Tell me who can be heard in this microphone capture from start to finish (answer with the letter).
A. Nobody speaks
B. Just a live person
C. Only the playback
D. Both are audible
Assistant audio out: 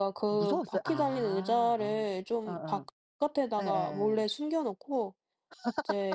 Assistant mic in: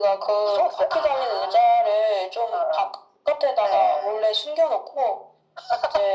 C